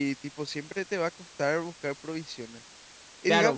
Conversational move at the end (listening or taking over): taking over